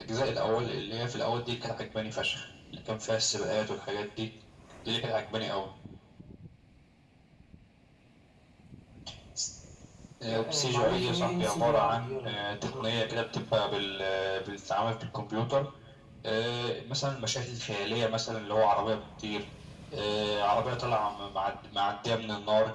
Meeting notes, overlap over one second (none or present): present